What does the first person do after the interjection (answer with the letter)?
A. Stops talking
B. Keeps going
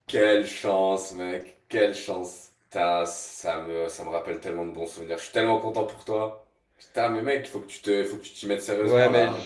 A